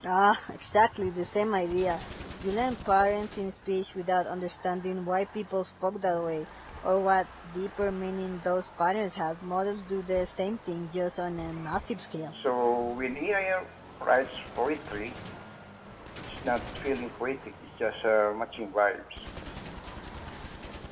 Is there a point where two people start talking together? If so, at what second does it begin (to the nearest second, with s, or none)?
none